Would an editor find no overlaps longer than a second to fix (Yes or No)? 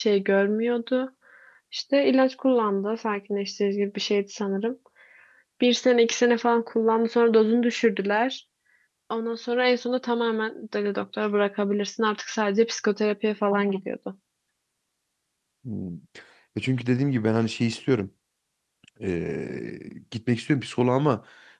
Yes